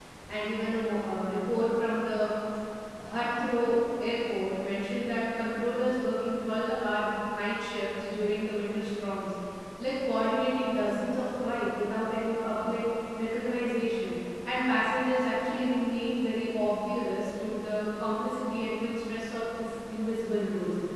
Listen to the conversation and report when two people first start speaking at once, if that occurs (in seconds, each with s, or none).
none